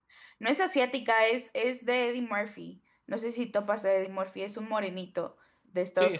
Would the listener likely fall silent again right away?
No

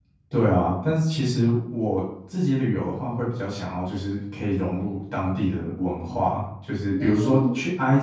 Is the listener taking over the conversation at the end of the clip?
No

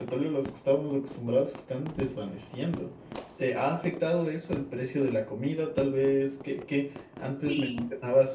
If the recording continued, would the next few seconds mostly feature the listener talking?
No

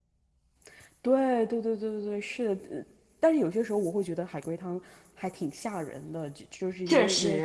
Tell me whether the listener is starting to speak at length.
No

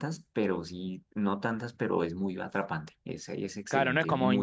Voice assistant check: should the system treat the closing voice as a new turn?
Yes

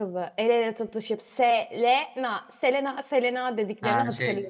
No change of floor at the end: No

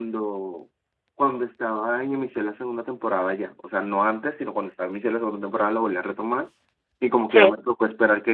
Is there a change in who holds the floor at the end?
No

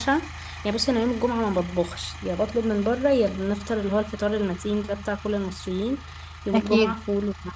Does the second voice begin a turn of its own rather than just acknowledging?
No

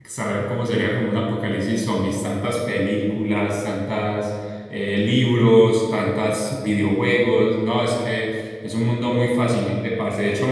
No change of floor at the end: Yes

